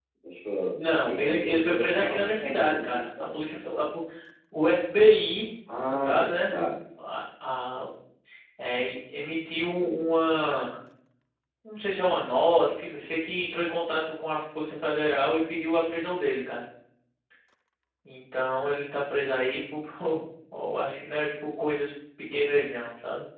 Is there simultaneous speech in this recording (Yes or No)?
Yes